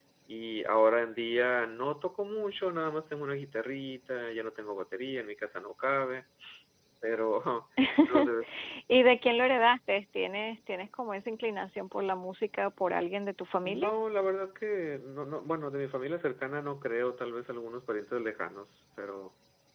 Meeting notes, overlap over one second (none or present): none